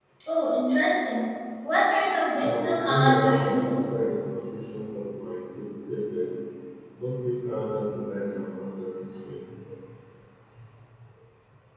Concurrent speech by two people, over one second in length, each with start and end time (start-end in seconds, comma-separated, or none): 2.4-3.8